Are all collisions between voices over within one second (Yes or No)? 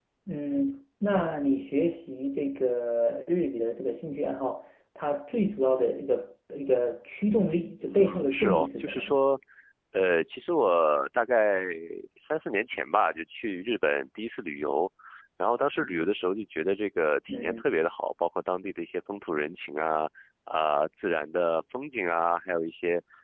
No